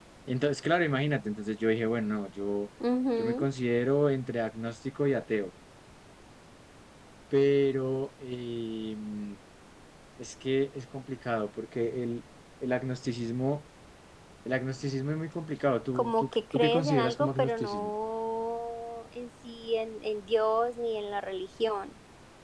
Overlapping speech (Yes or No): Yes